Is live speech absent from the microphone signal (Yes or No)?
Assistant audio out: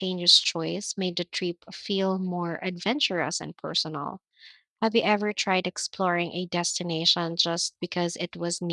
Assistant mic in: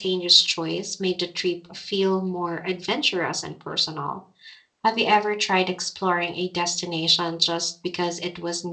Yes